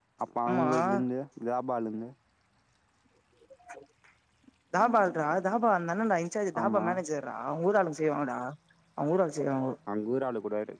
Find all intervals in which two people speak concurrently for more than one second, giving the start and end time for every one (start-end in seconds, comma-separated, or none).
none